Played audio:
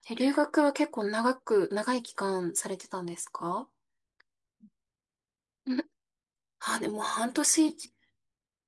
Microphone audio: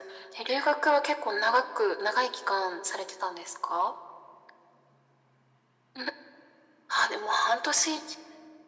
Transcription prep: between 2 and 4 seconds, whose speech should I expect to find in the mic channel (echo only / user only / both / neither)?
echo only